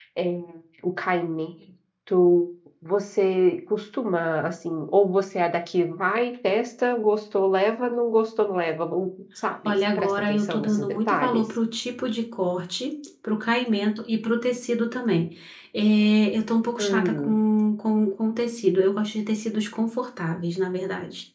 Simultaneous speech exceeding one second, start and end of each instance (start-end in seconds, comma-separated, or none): 9.7-11.4